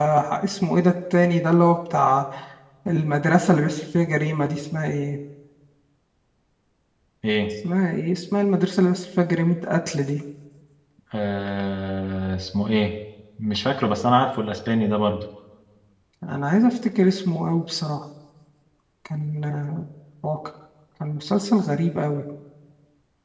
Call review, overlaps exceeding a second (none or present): none